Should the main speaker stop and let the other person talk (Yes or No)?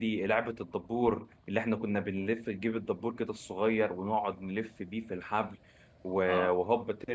No